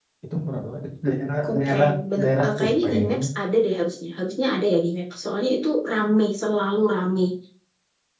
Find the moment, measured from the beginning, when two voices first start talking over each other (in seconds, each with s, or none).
1.4 s